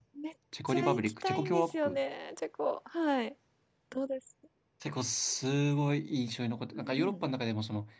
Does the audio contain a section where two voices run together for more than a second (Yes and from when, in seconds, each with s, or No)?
Yes, from 0.7 s